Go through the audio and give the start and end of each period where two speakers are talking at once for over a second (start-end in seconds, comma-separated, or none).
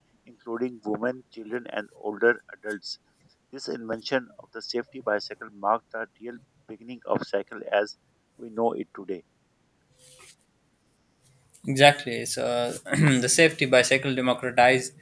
none